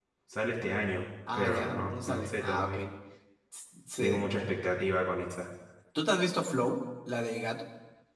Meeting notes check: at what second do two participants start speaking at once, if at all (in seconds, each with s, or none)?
1.3 s